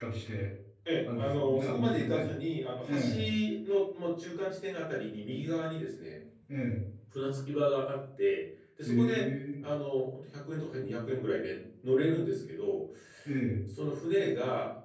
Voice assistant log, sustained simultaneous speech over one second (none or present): present